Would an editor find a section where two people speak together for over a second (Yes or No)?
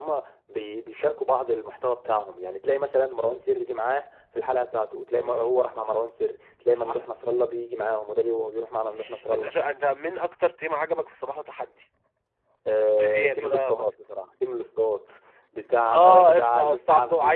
Yes